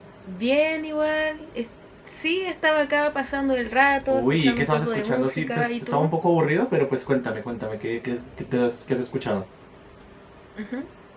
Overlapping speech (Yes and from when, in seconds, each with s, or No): Yes, from 4.1 s